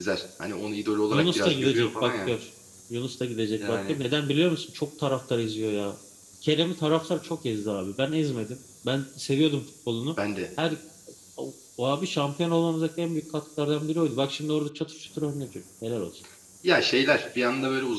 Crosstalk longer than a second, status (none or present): present